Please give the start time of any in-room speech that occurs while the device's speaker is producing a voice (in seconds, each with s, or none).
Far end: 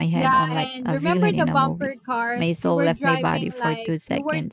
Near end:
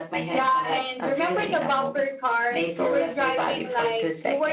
none